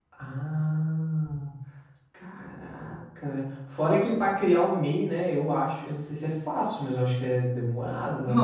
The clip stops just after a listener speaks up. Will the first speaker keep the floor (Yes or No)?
No